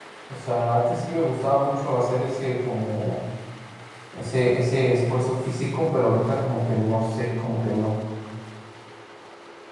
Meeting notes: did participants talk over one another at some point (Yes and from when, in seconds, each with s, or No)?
No